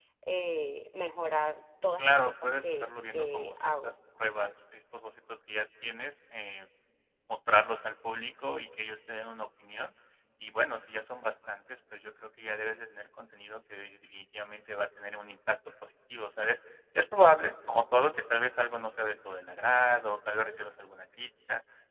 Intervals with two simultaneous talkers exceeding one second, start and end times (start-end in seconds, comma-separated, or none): 2.0-3.9